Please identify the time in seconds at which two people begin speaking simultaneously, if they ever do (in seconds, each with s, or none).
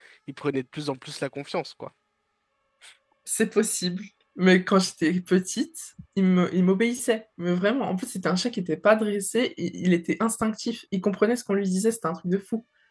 none